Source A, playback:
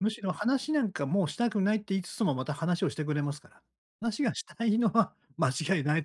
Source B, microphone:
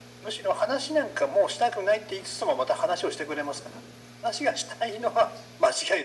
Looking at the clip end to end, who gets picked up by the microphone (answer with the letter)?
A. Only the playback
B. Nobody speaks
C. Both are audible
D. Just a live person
A